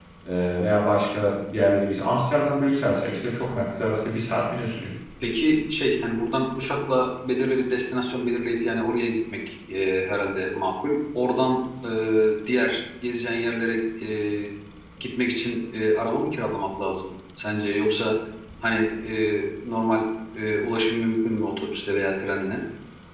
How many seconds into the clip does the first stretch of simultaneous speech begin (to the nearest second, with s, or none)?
none